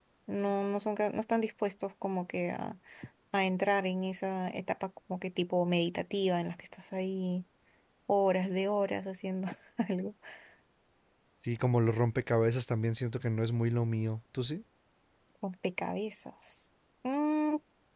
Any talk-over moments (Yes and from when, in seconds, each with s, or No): No